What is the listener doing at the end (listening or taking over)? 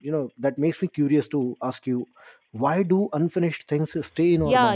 taking over